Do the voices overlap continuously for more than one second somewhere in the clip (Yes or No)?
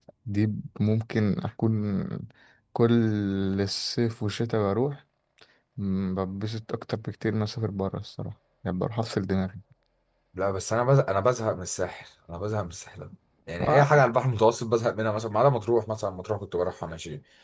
No